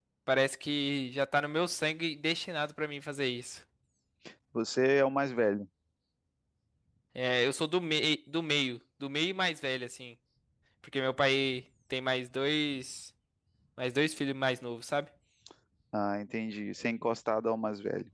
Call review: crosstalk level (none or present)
none